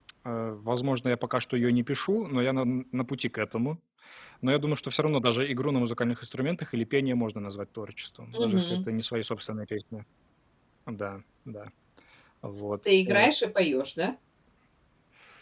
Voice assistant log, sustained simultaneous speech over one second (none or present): none